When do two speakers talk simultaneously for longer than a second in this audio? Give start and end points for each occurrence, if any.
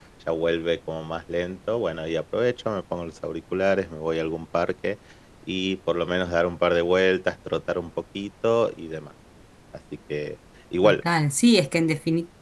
none

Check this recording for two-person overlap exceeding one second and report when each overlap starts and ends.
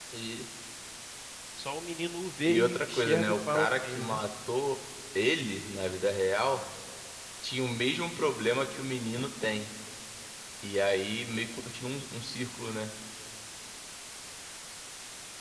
2.4-4.2

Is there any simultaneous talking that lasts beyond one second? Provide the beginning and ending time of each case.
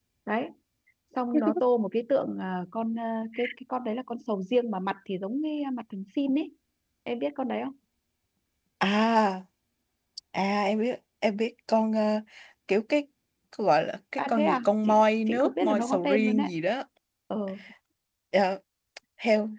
14.2-16.5

